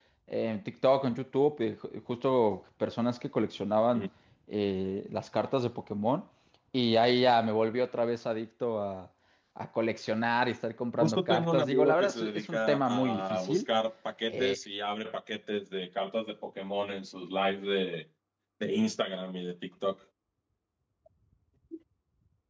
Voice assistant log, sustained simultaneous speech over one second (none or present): present